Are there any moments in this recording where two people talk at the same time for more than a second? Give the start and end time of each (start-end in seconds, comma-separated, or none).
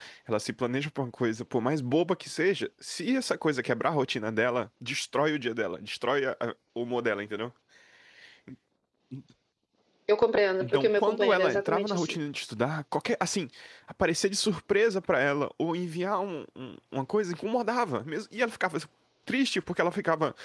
10.6-12.2